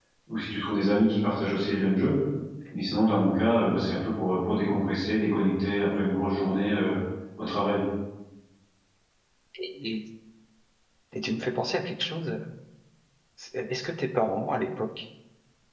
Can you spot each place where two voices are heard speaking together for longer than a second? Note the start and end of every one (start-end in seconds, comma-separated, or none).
none